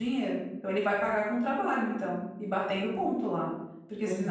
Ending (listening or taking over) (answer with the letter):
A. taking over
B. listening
A